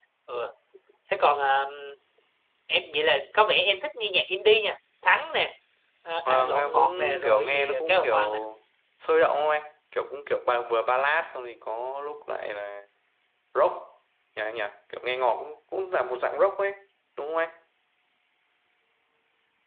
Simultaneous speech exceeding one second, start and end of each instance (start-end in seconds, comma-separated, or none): 6.2-8.2